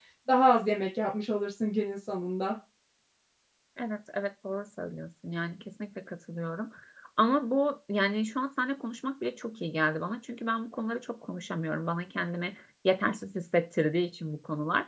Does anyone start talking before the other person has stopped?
No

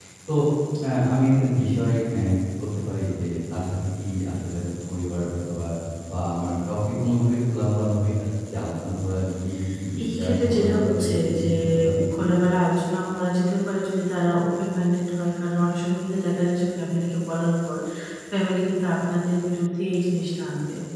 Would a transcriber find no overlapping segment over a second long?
No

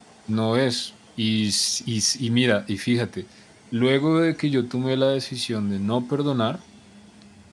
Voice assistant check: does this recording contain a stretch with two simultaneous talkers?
No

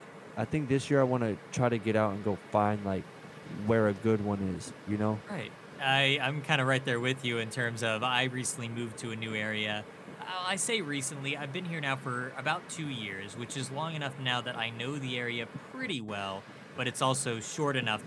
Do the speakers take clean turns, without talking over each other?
Yes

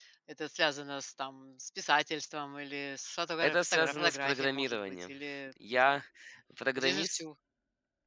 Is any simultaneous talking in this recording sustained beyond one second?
Yes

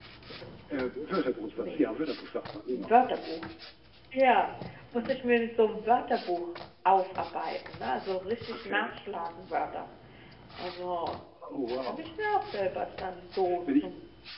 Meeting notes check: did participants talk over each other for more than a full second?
No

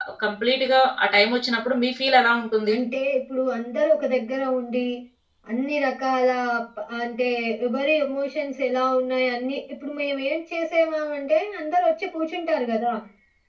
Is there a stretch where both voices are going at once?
No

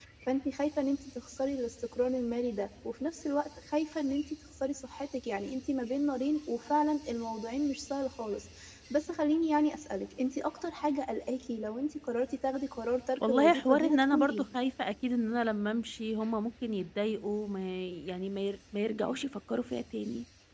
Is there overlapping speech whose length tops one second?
Yes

